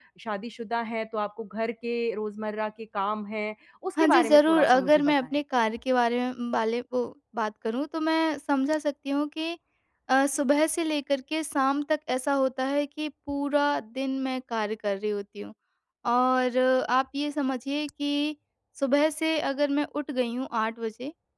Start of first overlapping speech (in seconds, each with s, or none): 4.0 s